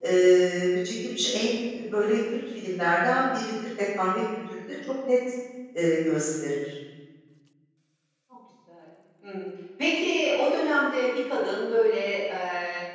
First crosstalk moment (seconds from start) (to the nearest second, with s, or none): none